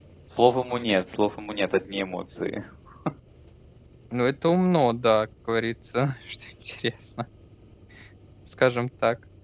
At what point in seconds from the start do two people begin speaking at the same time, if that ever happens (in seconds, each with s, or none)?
none